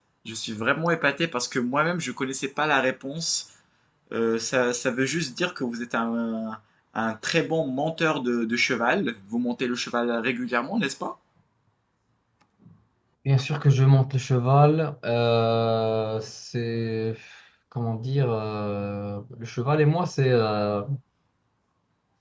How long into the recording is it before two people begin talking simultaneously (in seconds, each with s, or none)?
none